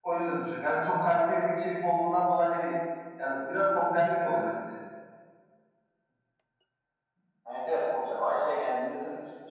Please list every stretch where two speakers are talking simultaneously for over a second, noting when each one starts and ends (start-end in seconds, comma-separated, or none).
none